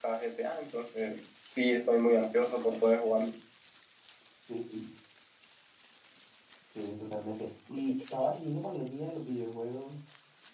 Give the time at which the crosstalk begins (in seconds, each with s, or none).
none